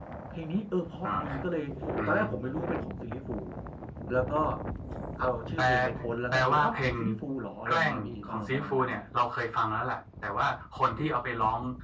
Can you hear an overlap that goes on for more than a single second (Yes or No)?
Yes